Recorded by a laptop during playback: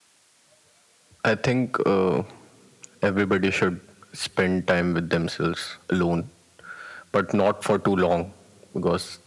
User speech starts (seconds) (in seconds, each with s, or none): none